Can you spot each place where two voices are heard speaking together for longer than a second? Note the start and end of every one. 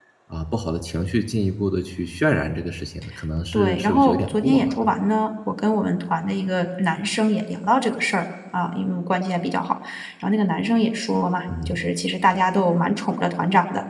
3.5-4.9

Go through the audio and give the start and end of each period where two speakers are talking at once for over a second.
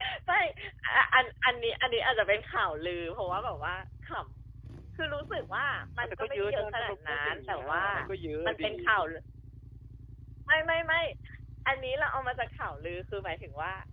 6.0-7.8

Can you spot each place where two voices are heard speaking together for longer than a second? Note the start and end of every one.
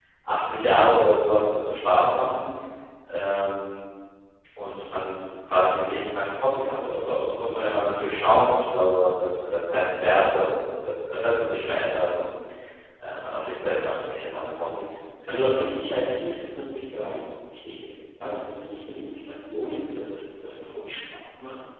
none

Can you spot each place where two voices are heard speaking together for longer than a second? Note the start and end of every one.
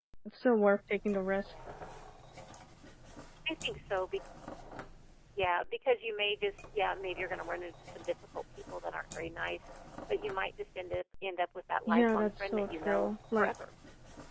11.9-13.5

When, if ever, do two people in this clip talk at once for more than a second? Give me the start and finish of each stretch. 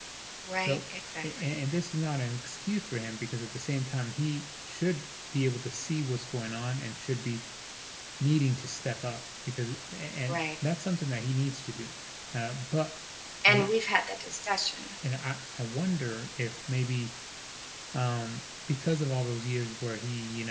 none

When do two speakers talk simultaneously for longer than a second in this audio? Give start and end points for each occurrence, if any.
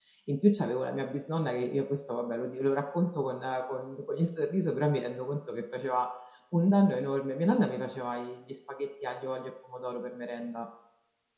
none

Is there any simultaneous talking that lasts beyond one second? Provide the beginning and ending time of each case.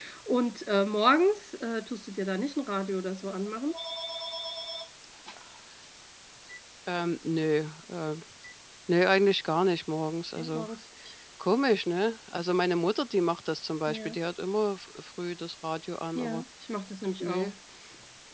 none

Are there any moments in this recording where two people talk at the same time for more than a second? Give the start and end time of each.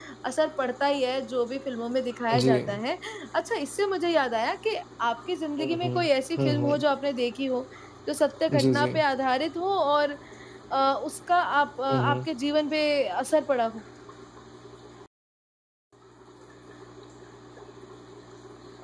none

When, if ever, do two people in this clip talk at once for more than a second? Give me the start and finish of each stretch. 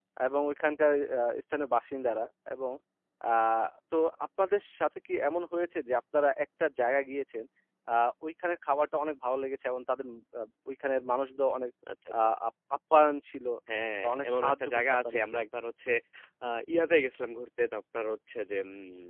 14.0-15.4

